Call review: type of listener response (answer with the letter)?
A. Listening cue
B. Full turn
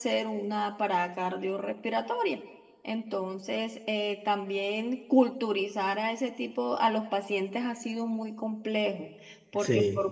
A